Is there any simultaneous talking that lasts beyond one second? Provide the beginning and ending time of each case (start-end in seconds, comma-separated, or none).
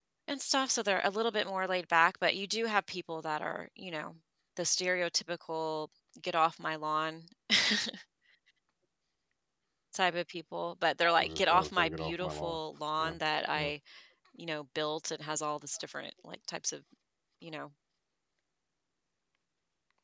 11.2-12.6